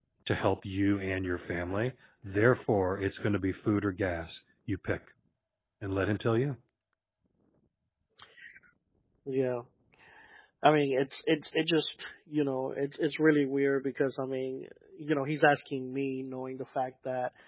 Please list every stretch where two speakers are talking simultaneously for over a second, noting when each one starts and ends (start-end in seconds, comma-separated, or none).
none